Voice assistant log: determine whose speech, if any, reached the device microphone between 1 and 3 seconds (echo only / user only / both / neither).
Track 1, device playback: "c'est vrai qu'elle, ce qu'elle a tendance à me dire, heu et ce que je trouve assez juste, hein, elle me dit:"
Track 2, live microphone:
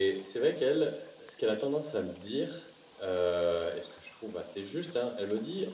echo only